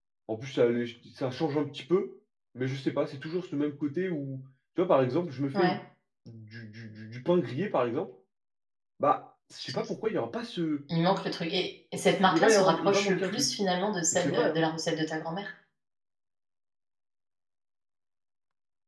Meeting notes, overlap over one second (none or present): present